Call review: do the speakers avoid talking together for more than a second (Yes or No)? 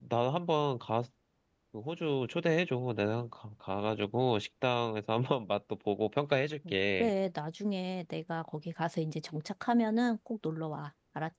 Yes